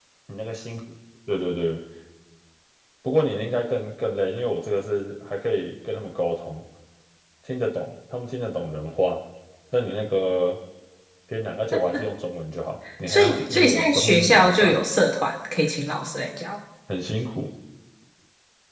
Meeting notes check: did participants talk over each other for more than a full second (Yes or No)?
Yes